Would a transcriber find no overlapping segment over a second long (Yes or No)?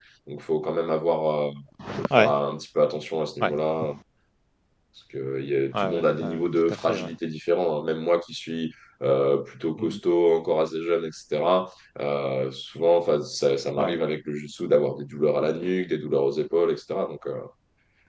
No